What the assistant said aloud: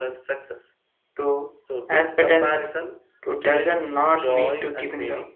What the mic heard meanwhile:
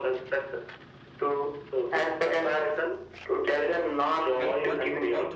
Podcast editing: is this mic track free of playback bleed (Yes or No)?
No